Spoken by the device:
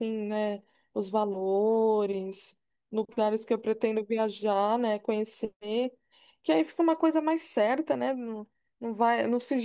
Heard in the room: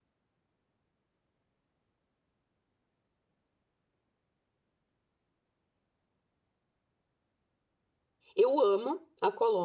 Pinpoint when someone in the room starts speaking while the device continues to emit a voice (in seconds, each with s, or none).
8.4 s